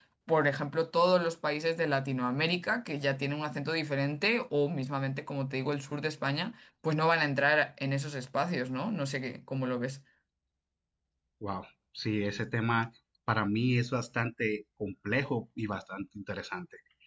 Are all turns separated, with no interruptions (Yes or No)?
Yes